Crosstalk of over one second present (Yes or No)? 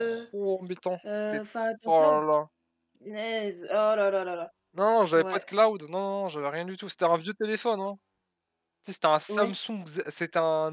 No